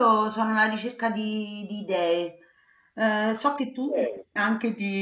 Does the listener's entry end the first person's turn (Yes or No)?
No